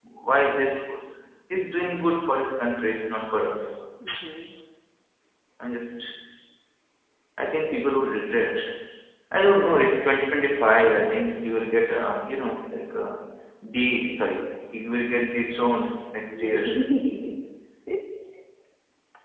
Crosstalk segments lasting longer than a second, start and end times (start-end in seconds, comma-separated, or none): none